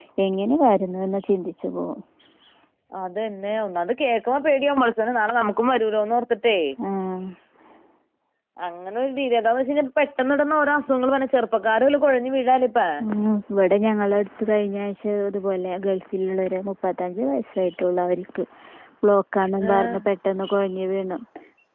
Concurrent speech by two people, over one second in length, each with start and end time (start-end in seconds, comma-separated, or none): none